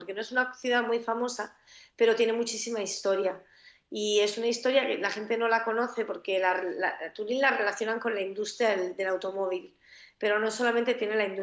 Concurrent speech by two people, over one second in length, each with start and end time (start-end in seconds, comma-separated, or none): none